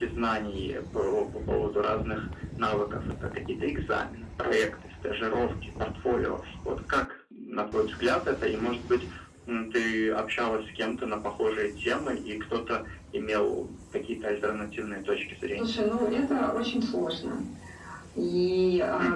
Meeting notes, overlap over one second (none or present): none